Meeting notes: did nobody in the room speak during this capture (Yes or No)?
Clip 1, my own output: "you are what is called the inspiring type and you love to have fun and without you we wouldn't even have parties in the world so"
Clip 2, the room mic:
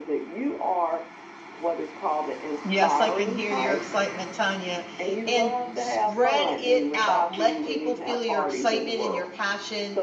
No